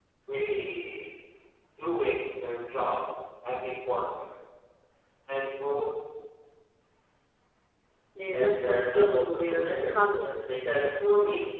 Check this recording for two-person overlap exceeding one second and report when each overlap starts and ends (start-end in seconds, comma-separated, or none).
8.3-10.7